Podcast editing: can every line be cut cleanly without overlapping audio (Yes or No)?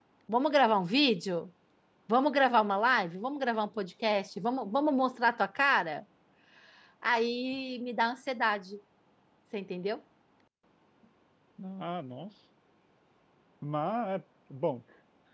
Yes